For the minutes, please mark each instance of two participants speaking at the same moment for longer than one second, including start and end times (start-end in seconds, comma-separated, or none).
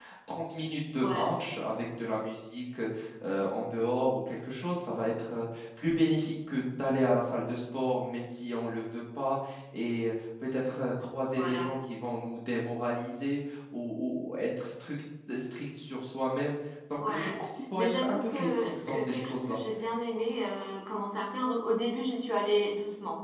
17.8-19.6